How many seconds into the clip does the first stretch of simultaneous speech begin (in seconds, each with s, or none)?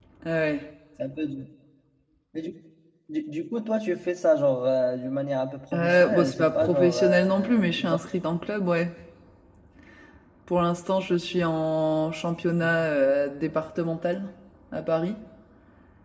5.7 s